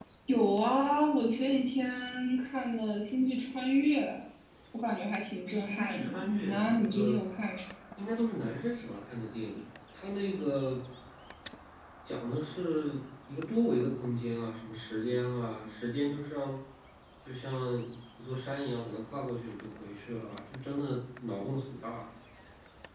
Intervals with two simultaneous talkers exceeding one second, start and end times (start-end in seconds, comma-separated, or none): 5.5-7.2